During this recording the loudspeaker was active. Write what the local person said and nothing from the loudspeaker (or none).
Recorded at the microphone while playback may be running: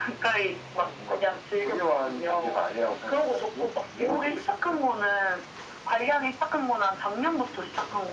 none